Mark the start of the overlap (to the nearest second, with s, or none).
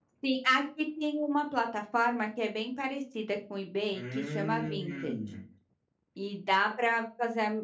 4 s